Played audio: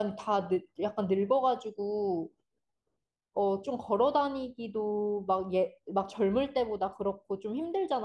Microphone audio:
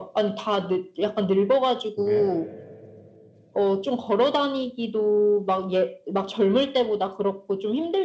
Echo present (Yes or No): Yes